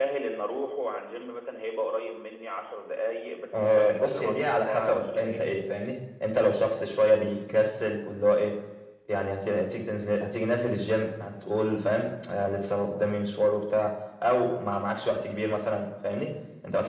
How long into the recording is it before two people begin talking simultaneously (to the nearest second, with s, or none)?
4 s